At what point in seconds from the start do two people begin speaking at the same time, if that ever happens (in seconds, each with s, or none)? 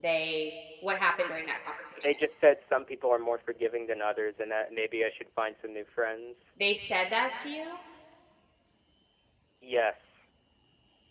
none